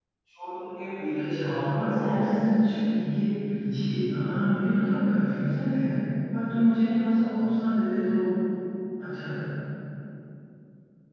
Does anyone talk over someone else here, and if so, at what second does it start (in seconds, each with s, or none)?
1.2 s